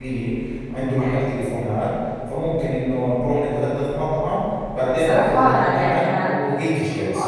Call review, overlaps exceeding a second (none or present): present